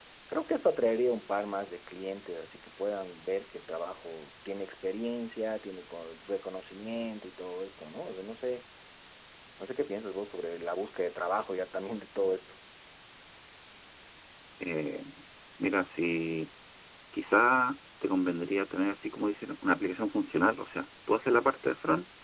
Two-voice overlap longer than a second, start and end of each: none

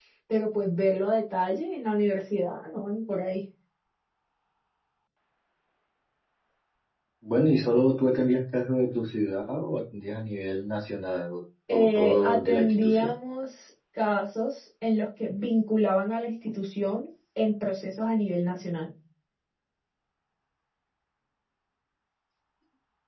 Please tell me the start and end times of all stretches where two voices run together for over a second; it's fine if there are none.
11.7-13.1

